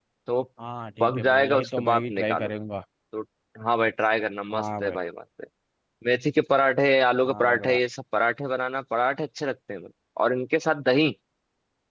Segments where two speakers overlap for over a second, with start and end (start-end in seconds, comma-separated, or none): 1.0-2.6